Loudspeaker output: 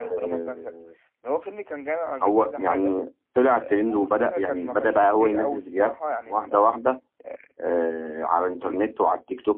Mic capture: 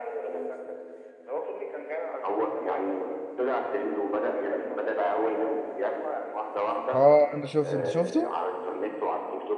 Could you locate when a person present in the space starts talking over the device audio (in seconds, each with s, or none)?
6.9 s